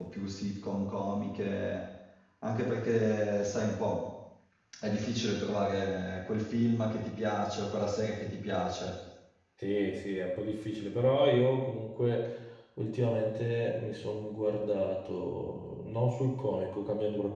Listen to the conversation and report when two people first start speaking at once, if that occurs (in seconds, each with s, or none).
none